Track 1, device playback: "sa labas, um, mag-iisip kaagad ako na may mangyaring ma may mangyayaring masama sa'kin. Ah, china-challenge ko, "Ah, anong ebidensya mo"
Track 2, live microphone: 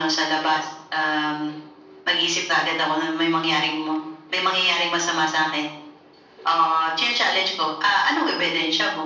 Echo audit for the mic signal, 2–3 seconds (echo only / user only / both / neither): echo only